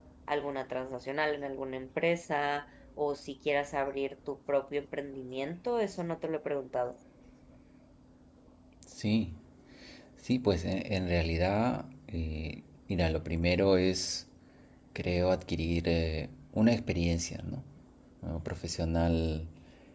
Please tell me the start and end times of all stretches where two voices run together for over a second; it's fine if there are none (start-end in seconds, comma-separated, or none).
none